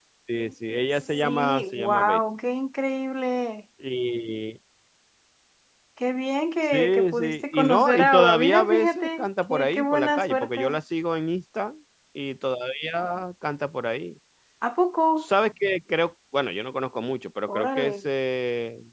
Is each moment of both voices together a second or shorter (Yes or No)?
No